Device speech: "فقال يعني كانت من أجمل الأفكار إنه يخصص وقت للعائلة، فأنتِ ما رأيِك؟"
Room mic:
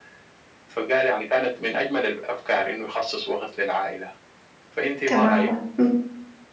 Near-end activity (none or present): present